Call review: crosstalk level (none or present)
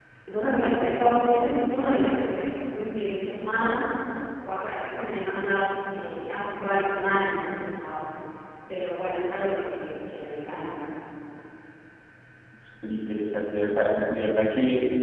none